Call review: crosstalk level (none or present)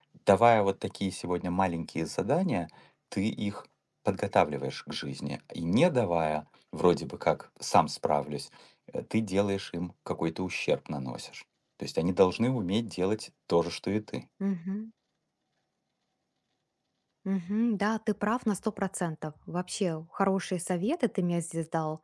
none